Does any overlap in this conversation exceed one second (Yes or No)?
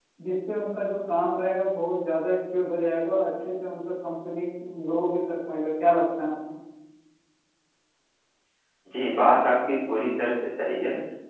No